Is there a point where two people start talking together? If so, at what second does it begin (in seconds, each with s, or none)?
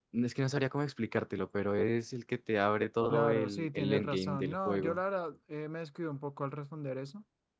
3.1 s